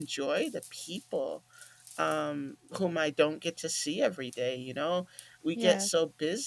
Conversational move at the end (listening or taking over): listening